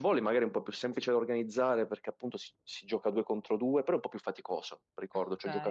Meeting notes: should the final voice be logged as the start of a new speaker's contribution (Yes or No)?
No